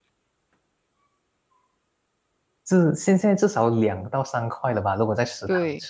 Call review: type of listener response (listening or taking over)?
taking over